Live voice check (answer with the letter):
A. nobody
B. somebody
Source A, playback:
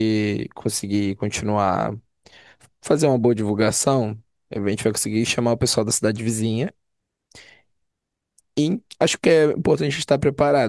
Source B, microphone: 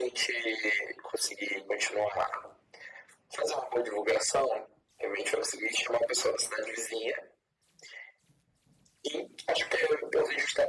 A